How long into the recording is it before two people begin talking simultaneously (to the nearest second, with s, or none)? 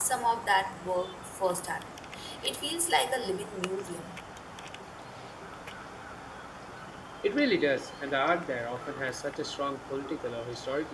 none